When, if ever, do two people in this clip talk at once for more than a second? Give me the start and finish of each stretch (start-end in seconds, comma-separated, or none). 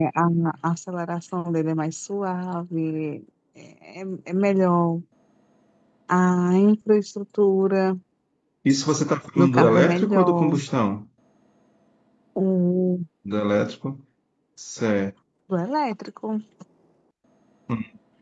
9.3-10.6